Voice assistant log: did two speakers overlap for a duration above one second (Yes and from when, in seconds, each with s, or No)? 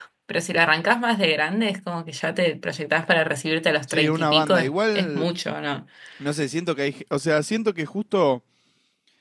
Yes, from 3.9 s